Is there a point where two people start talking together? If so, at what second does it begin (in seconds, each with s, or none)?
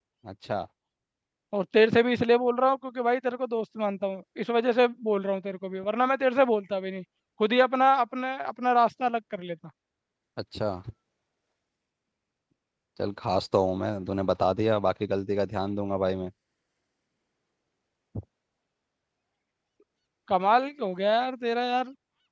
none